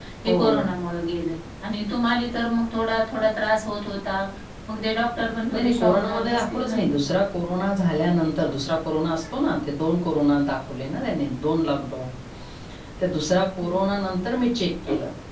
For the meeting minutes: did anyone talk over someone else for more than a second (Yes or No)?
Yes